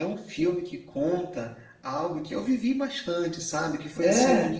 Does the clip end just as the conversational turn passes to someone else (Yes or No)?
No